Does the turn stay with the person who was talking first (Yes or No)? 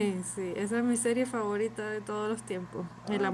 Yes